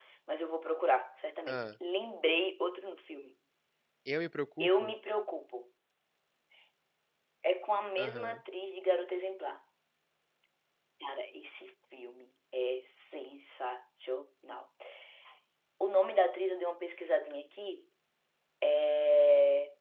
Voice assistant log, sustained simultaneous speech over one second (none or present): none